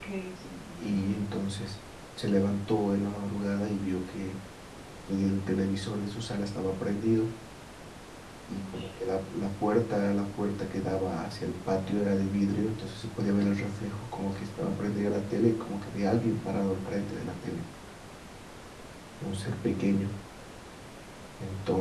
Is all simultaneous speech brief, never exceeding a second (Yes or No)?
Yes